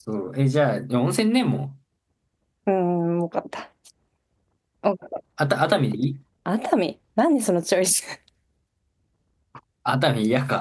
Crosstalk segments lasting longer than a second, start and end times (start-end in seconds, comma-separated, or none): none